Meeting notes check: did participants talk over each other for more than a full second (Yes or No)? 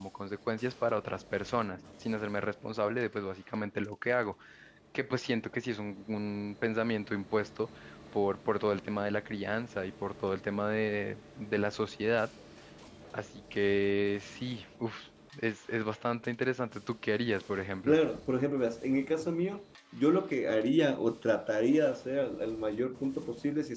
No